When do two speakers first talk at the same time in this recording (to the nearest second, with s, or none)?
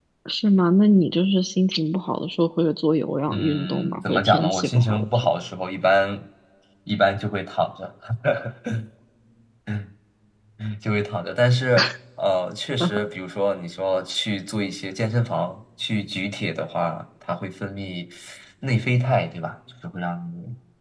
3 s